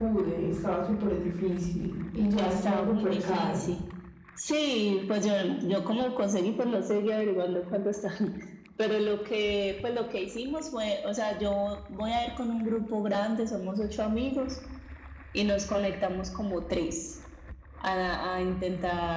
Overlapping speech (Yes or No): Yes